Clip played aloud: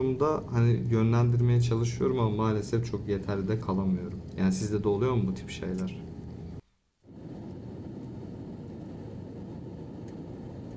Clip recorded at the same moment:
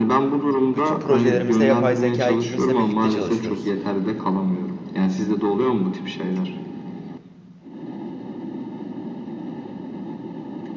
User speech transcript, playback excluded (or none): Bütün projelerimizde yapay zeka ekibimizle birlikte çalışıyoruz.